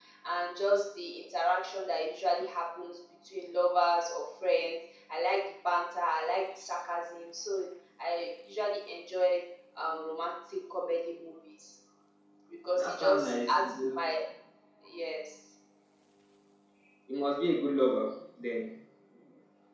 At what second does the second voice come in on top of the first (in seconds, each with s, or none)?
12.8 s